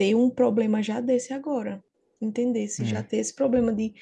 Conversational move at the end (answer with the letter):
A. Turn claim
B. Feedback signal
B